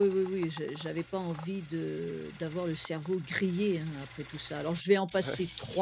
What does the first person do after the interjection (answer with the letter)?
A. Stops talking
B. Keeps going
B